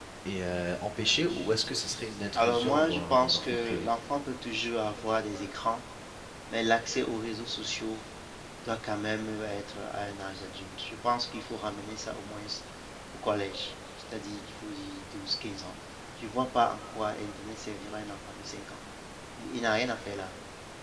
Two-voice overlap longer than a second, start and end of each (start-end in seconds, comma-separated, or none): 2.4-3.9